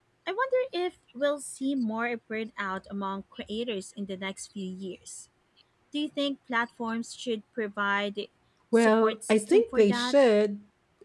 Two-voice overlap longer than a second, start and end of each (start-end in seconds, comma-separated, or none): 8.7-10.2